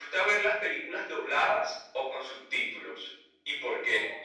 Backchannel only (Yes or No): No